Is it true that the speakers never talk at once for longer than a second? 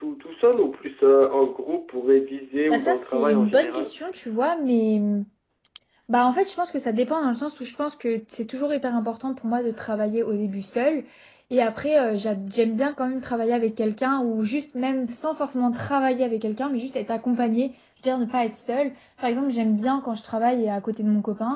No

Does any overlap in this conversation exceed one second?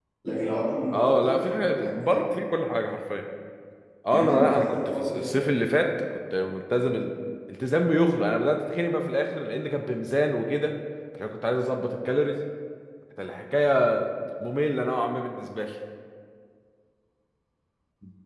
Yes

